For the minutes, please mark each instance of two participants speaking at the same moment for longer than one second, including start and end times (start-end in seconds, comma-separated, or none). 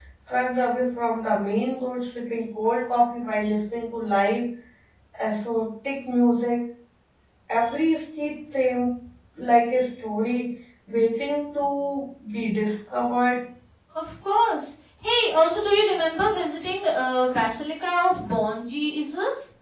none